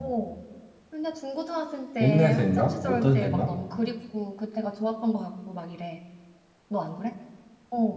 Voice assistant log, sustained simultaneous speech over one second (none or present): present